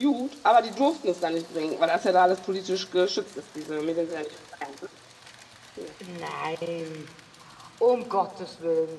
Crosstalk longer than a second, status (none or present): none